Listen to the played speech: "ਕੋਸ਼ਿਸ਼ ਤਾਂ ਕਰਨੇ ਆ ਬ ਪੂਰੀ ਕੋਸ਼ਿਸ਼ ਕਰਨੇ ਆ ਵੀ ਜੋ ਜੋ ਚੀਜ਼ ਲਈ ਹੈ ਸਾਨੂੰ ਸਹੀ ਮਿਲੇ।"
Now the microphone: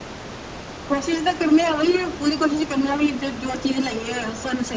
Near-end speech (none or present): none